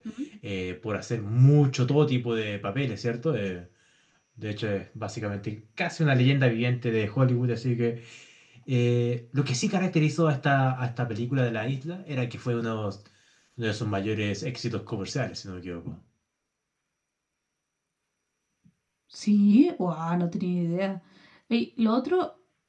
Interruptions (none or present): none